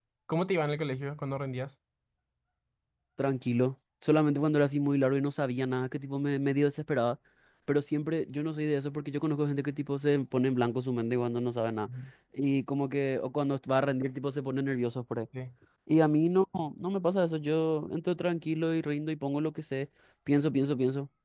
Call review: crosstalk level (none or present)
none